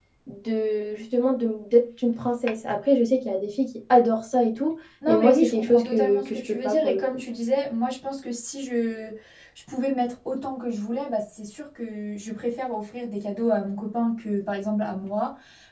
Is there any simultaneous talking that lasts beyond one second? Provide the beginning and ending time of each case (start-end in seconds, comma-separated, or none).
5.1-7.0